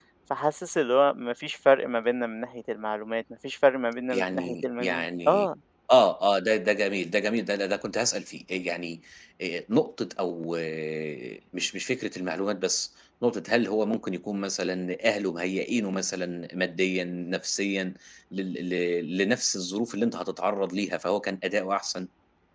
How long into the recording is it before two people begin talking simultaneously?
4.1 s

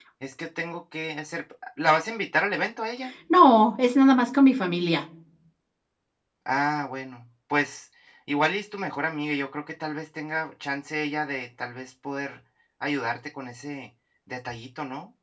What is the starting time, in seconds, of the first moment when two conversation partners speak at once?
none

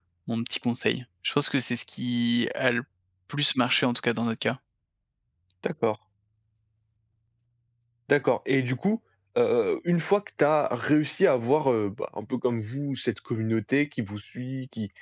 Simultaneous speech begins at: none

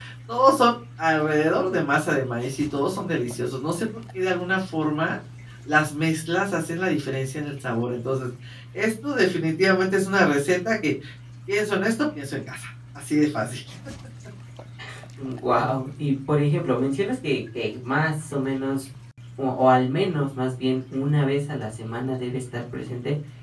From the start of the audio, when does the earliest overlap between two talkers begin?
none

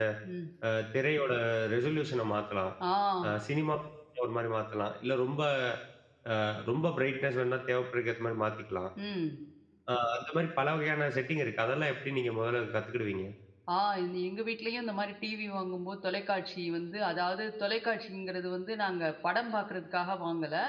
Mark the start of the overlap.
none

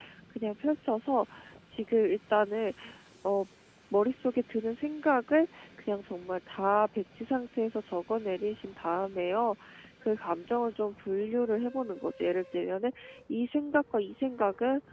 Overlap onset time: none

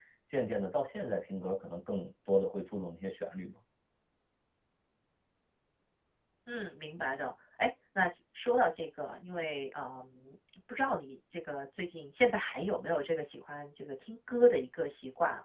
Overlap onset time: none

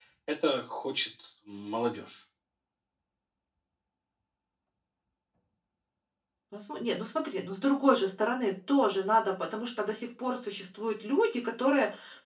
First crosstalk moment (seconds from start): none

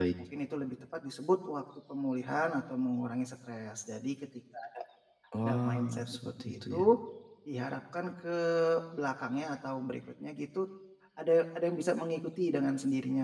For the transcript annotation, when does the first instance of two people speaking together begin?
5.4 s

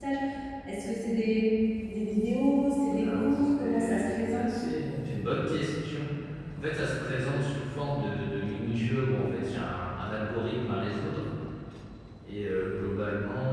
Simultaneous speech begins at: 3.0 s

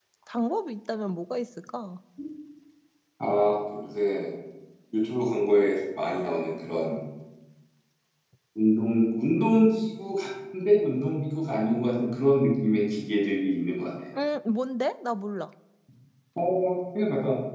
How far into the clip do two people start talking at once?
none

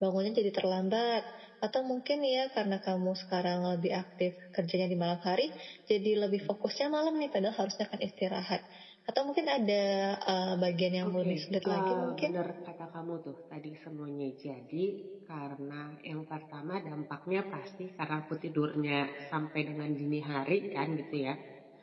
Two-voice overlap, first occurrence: 11.0 s

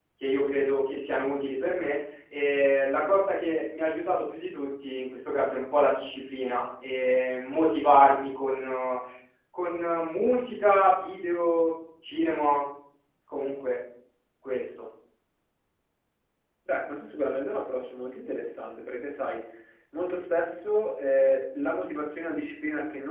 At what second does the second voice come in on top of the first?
none

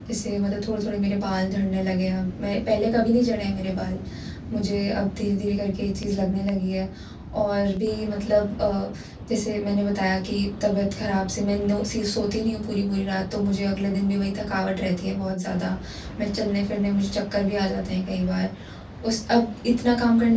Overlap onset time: none

